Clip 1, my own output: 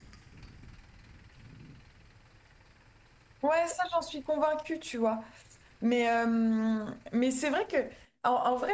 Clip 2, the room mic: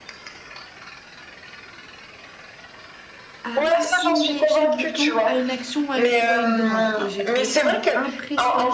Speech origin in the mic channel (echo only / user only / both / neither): both